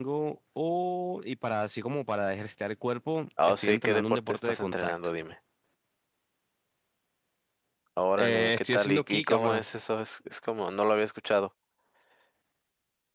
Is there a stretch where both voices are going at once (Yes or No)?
Yes